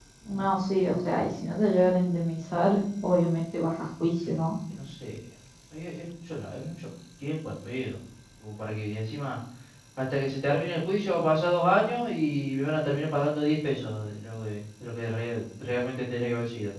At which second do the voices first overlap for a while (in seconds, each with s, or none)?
none